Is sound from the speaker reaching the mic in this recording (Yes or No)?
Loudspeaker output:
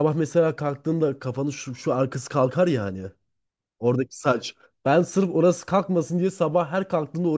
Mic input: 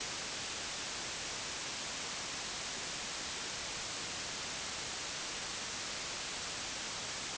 No